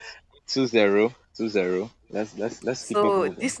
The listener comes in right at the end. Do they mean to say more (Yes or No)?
Yes